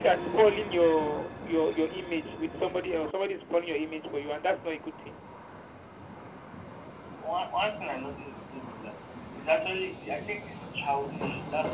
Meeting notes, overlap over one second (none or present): none